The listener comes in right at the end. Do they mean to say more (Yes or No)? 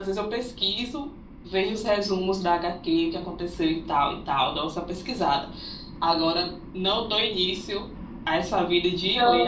Yes